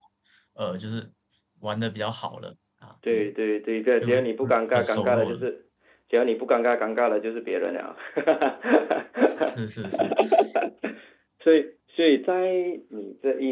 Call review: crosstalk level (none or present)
present